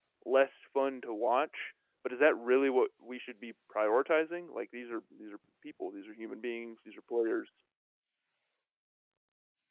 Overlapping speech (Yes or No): No